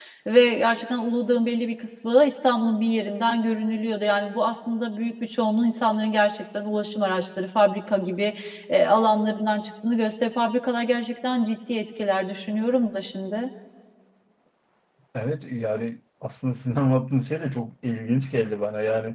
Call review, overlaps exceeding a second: none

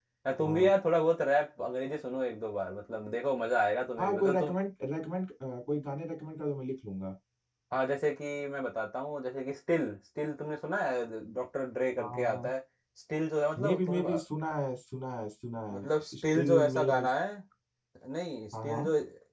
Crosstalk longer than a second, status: present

